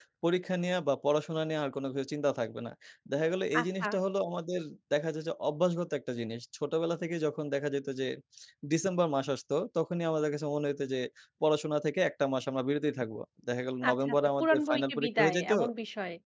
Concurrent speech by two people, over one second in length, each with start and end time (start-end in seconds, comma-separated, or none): 13.9-15.5